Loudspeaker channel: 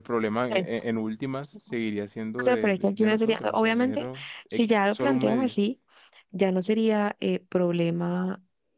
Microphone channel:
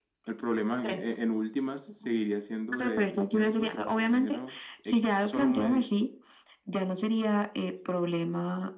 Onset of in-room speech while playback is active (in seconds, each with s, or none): none